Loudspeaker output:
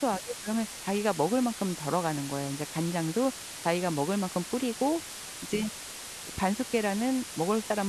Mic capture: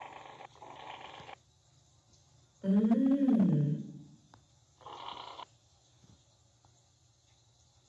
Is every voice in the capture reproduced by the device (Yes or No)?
No